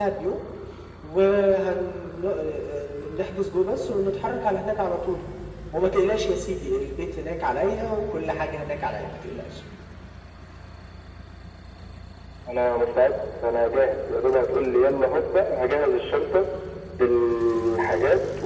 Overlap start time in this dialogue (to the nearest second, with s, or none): none